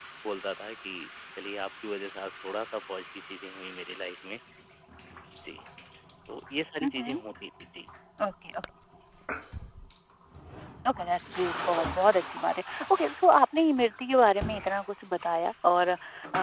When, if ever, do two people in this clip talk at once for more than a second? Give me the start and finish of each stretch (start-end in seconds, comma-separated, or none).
none